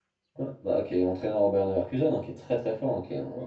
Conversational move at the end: taking over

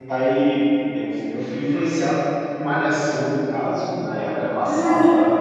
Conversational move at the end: listening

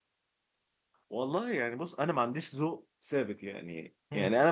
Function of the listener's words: listening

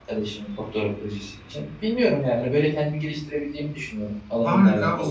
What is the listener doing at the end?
taking over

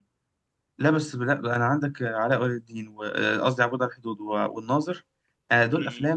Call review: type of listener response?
listening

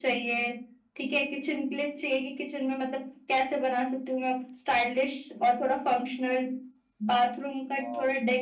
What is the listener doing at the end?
listening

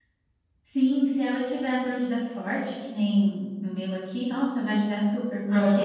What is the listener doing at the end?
listening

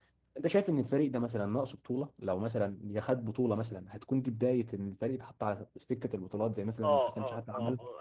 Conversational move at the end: taking over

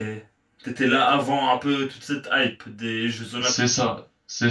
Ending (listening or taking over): taking over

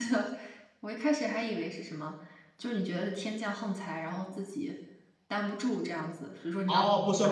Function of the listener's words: taking over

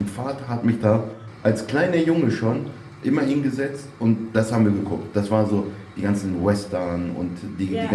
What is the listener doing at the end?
listening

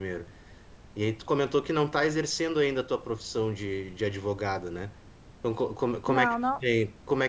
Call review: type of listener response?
listening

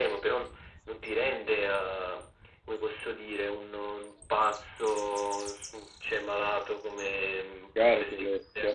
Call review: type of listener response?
taking over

